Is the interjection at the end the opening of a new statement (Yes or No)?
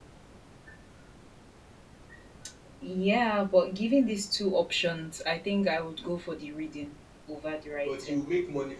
Yes